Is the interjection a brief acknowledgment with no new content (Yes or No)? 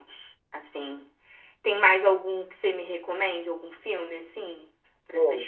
No